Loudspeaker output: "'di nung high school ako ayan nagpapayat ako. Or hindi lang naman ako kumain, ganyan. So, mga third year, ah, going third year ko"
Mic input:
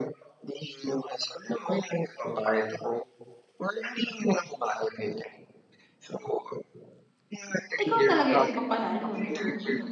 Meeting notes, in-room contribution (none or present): present